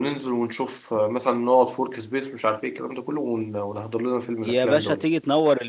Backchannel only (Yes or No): No